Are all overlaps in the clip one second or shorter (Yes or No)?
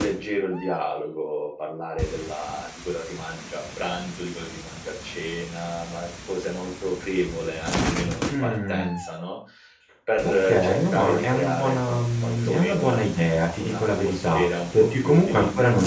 No